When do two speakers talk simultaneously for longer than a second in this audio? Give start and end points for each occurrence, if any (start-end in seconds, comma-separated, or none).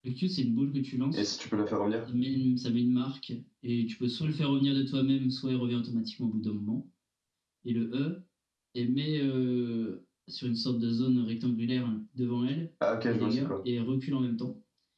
none